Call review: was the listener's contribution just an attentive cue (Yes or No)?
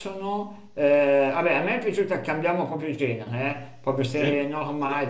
Yes